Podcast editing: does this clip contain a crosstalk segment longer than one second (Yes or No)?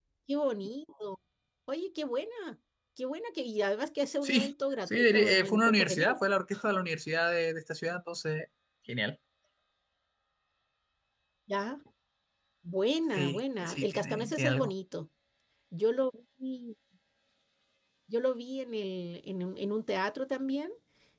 Yes